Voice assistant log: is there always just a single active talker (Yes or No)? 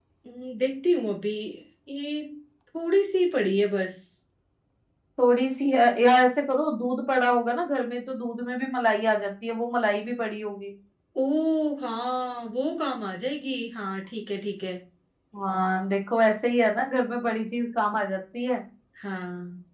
Yes